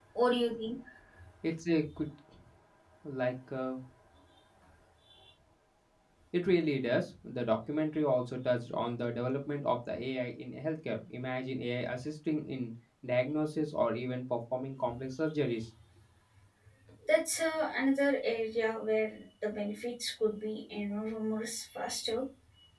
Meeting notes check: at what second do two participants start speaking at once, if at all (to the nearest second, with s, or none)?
none